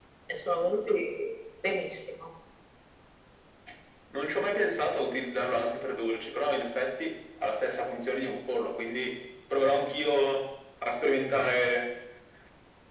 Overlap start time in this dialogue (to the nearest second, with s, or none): none